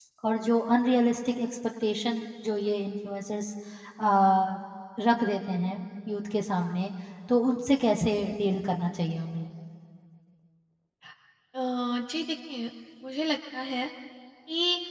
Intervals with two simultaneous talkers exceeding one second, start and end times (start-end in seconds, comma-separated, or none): none